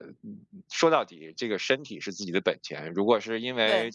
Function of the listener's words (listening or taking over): listening